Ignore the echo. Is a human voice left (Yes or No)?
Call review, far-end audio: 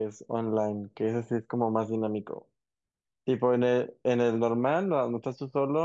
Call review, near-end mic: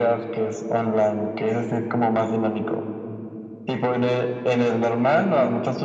No